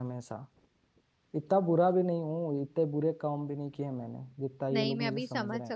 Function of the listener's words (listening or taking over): taking over